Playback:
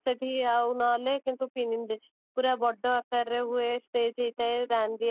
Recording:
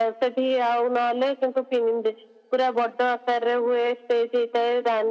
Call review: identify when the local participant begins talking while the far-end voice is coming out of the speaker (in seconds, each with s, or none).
none